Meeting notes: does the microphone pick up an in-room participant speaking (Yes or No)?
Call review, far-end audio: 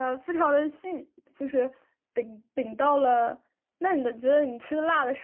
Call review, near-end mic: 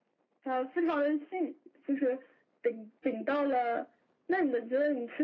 No